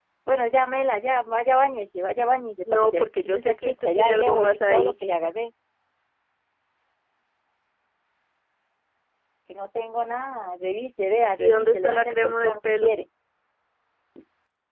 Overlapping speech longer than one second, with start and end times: 2.7-4.9, 11.4-12.9

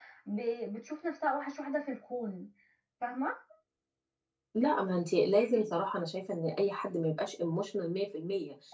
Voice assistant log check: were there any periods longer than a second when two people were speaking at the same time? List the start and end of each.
none

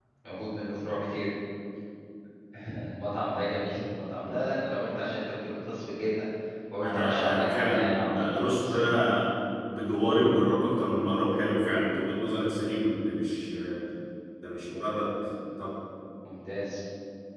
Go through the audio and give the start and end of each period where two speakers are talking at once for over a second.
6.8-8.8

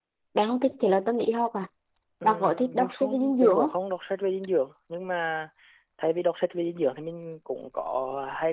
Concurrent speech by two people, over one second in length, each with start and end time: 2.2-3.7

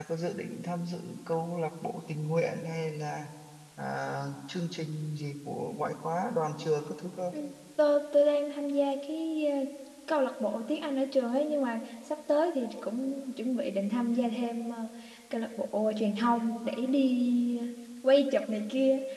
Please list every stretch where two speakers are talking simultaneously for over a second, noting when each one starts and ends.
none

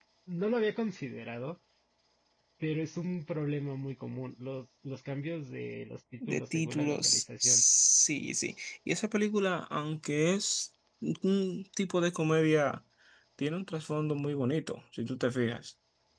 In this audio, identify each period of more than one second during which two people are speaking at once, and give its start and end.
6.3-7.6

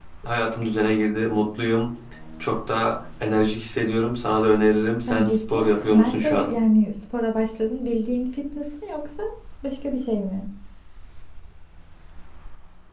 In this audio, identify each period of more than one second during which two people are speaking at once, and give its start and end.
5.1-6.5

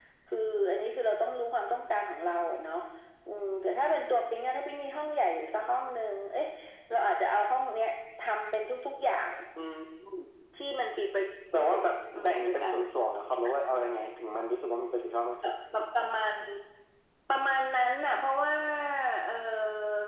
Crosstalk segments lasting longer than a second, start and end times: 11.5-12.8

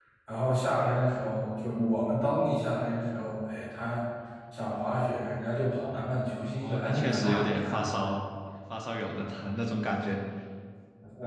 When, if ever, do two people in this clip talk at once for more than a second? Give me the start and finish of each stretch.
6.5-7.8

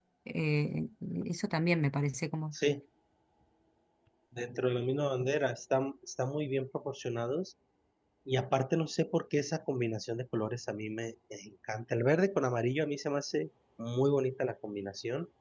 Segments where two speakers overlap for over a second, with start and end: none

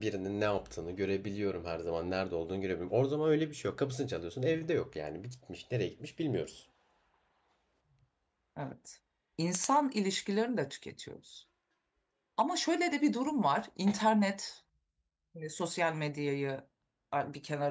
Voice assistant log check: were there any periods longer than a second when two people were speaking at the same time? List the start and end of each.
none

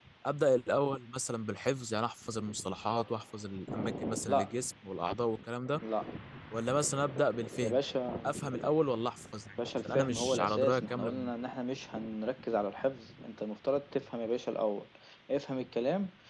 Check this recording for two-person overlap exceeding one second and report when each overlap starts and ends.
9.6-11.3

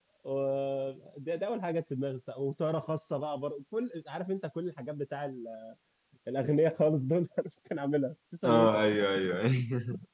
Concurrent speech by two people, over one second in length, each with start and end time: none

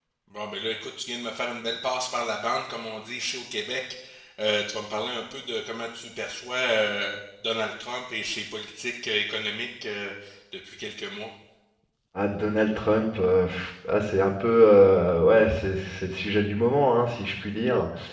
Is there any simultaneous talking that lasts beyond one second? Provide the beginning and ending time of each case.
none

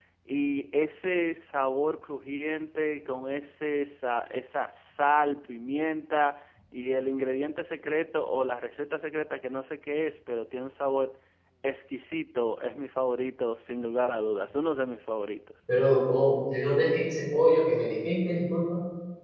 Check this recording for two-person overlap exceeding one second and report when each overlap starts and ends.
none

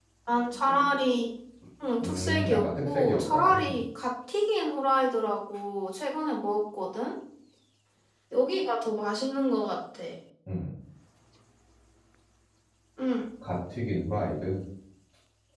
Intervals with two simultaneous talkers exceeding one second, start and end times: 2.0-3.8

